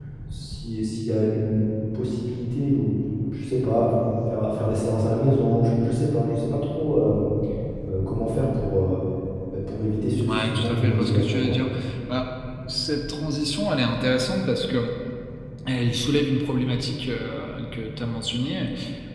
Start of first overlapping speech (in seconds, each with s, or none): 10.3 s